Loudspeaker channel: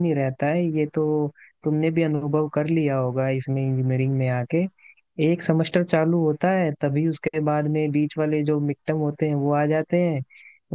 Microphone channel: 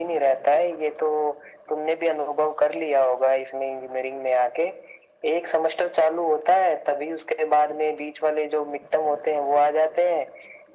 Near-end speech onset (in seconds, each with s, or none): none